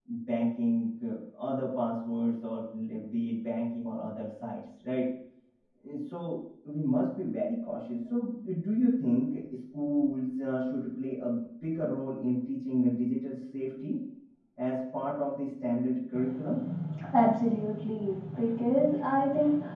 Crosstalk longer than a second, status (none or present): none